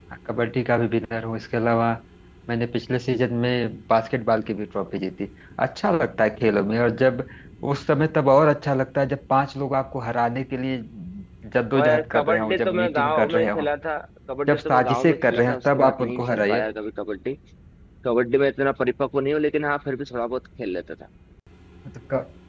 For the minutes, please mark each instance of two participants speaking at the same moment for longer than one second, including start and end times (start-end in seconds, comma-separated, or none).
11.7-13.7, 14.5-16.7